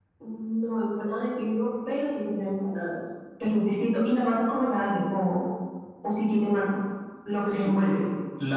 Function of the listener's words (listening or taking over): taking over